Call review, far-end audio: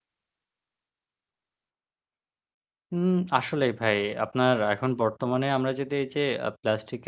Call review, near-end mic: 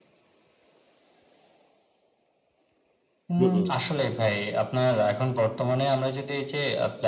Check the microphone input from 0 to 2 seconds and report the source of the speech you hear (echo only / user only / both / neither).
neither